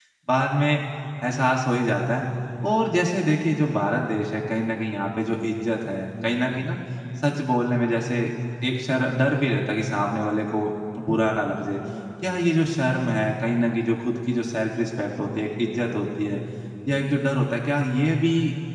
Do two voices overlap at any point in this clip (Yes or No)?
No